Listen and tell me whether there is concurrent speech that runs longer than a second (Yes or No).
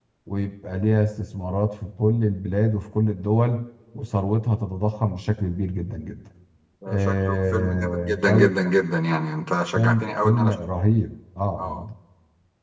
Yes